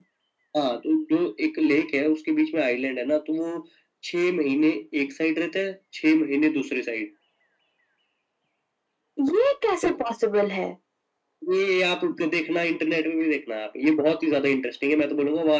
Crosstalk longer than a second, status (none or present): none